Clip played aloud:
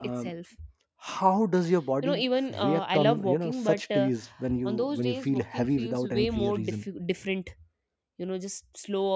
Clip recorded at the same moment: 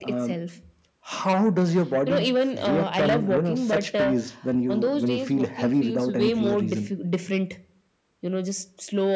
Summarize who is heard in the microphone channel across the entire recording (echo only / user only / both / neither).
echo only